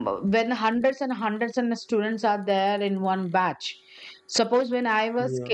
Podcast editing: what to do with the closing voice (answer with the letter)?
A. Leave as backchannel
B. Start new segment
A